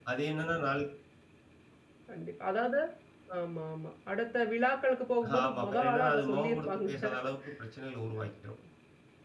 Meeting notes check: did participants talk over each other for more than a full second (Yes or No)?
Yes